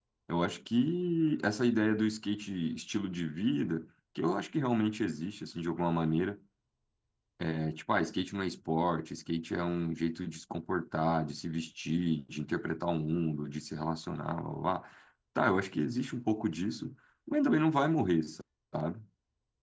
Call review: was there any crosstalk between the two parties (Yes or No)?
No